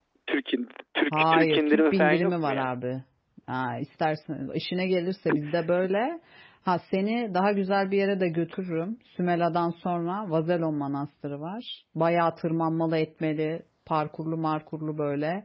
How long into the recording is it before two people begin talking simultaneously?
1 s

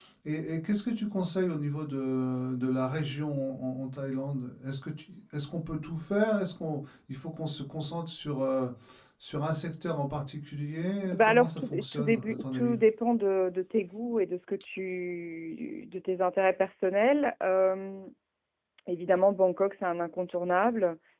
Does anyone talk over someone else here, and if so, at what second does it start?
11 s

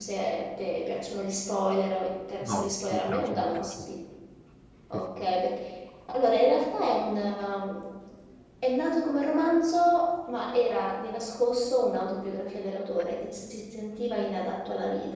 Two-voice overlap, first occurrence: 2 s

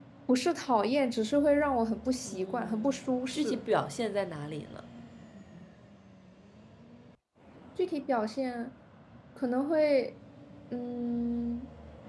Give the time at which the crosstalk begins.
2 s

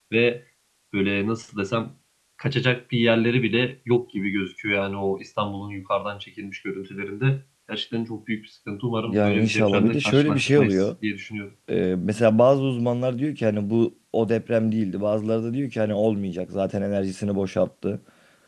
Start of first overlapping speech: 9 s

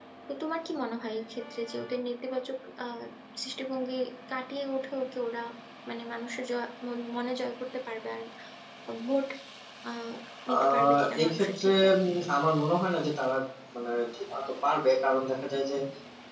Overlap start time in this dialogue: 11 s

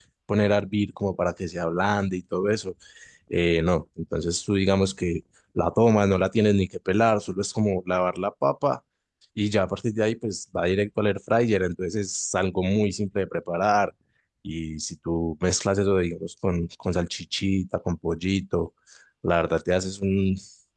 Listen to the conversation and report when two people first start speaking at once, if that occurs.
none

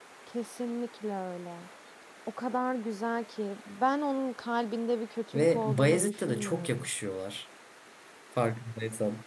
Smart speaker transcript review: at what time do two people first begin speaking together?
5 s

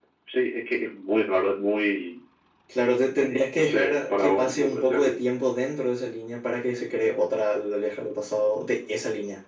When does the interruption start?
4 s

